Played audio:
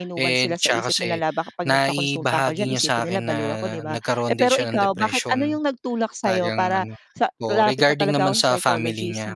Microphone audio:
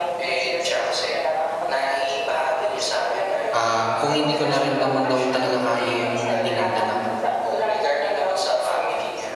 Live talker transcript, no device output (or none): um, kung hindi ko narin naman daw talaga kaya yung dinadala ko,